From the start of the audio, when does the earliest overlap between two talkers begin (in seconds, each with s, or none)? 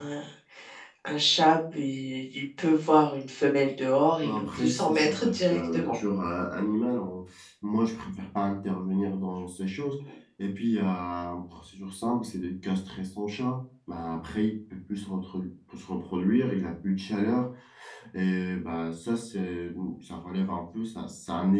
4.2 s